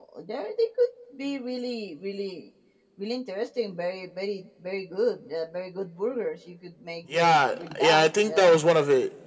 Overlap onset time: 7 s

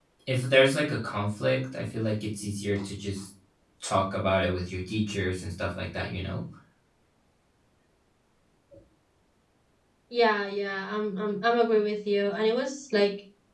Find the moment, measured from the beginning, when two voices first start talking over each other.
none

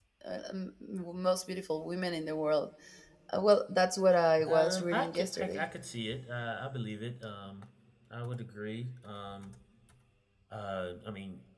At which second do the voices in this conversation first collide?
4 s

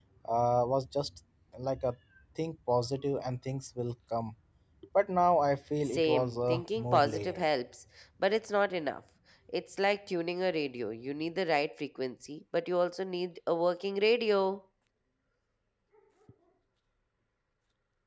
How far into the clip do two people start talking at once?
6 s

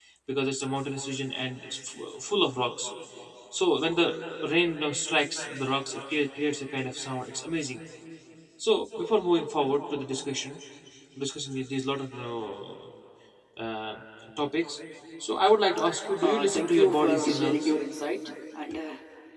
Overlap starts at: 16 s

